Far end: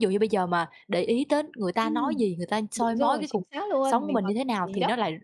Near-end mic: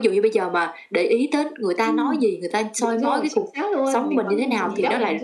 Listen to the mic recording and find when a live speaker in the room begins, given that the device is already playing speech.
4.3 s

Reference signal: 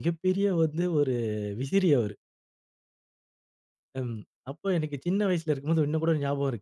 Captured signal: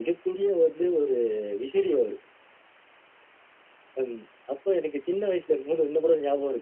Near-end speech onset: none

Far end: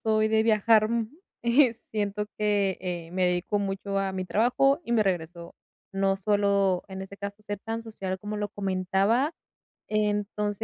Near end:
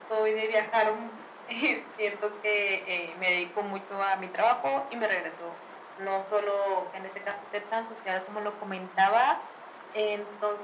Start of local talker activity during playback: none

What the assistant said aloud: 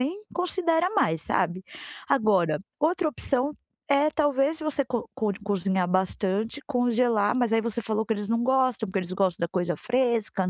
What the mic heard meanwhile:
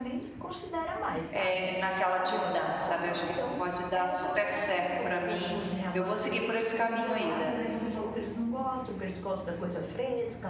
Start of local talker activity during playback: 1.3 s

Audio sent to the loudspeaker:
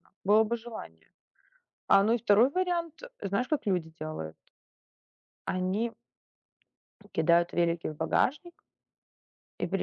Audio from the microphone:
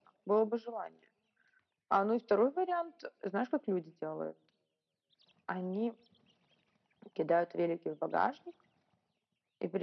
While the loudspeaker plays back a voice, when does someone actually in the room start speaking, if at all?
none

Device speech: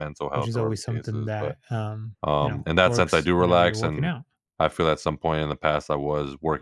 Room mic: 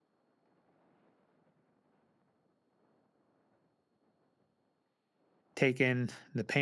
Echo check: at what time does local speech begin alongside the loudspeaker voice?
5.5 s

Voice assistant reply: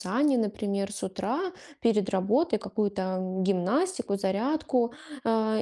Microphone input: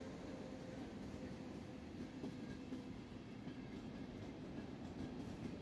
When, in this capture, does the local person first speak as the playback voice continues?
none

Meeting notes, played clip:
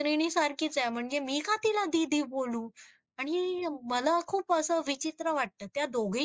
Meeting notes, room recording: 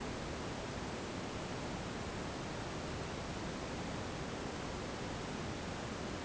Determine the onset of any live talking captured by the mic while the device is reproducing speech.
none

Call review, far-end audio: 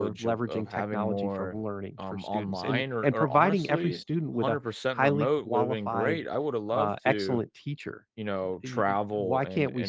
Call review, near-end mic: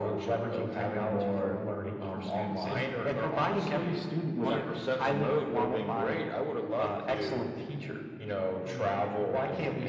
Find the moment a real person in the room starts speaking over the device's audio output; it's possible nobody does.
4.4 s

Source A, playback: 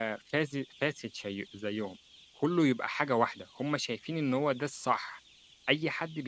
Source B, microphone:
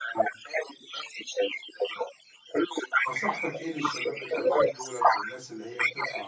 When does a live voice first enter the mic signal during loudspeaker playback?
3.1 s

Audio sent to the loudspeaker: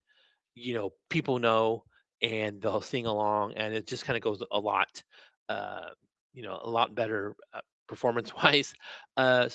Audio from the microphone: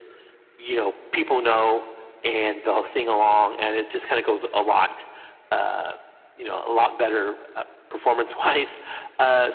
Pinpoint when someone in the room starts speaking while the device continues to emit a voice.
none

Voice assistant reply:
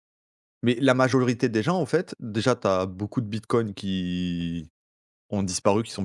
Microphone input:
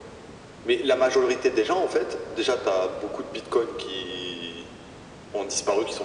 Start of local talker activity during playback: none

